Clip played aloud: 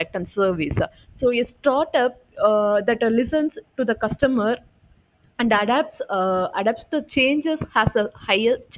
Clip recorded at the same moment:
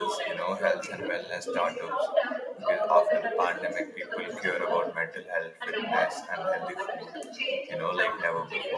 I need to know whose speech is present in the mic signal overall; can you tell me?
both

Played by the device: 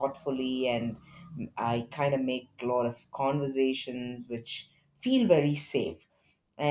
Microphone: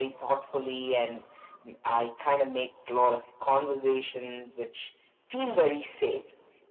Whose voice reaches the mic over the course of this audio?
echo only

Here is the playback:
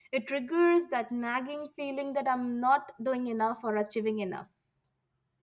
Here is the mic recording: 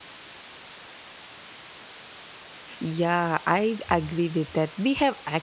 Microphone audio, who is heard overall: user only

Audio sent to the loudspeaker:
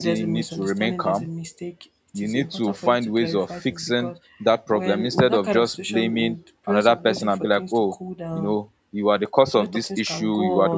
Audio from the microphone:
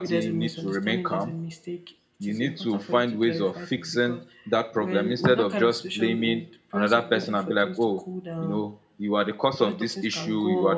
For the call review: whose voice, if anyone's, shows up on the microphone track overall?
echo only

